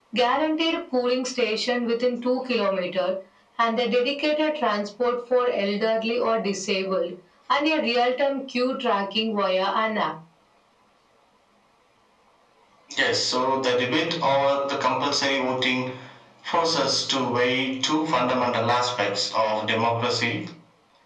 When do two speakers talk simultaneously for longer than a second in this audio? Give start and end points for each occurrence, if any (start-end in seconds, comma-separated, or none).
none